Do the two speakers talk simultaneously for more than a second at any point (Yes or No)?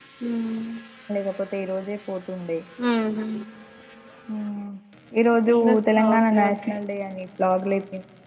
Yes